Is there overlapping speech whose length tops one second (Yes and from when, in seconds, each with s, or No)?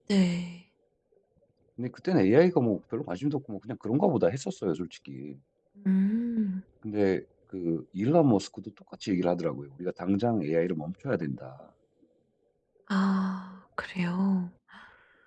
No